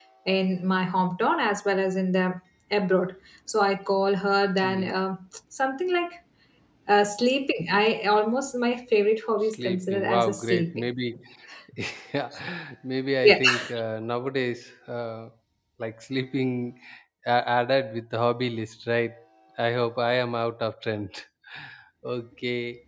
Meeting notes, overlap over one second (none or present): present